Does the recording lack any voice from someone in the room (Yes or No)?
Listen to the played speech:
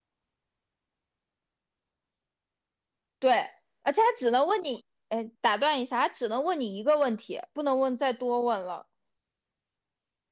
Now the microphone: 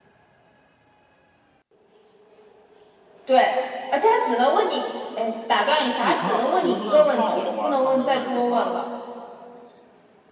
No